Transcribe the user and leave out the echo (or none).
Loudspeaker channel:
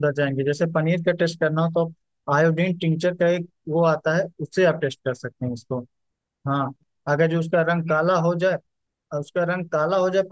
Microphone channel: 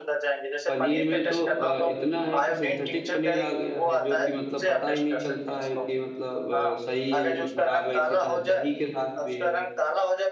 पनीर में तो अ, इतना है कि सिंथेटिक पनीर आ गया है जो कि मतलब पता ही नहीं चलता है कि मतलब अ, सही है कि खराब है इसी तरह दही के साथ भी है